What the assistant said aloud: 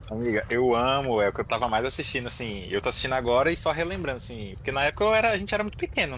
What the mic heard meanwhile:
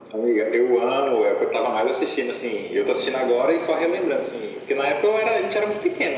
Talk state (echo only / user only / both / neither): echo only